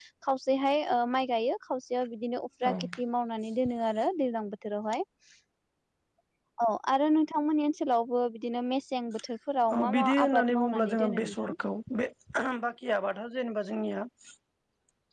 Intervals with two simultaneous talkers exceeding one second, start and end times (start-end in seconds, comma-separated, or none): 9.8-11.5